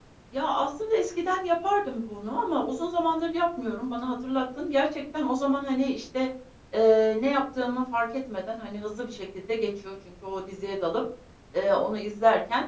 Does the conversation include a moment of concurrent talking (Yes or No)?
No